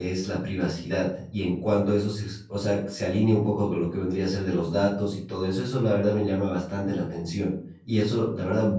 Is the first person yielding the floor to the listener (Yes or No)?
No